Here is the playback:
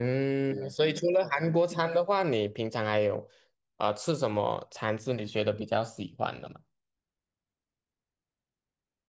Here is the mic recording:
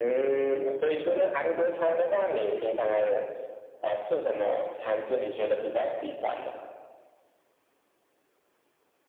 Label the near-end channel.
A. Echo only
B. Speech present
A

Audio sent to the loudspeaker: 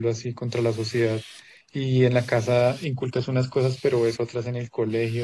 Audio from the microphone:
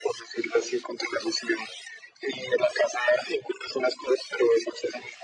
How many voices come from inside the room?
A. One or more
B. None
B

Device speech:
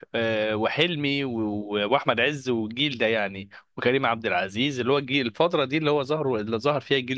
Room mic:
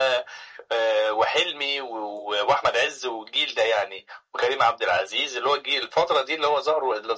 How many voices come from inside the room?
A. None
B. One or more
A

